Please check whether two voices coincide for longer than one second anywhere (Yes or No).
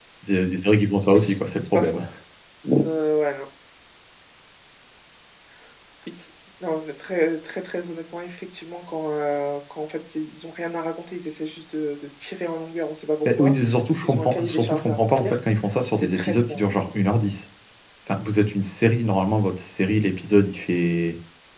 Yes